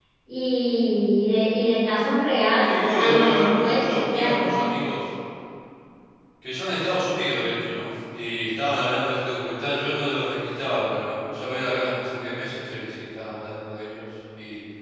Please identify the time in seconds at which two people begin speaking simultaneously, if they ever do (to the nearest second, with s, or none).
3 s